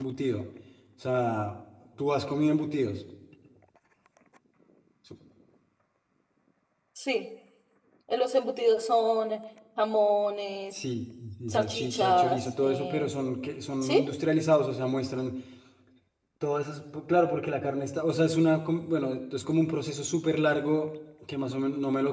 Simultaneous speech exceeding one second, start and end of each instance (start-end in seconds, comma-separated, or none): 11.5-13.1